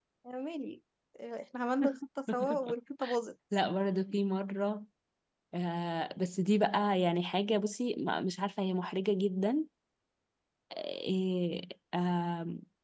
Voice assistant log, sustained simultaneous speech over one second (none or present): none